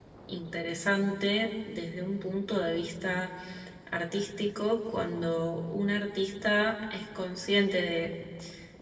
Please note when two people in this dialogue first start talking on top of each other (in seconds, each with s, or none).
none